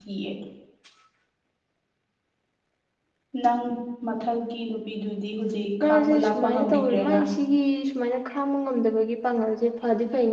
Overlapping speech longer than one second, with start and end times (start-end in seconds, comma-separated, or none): 5.8-7.2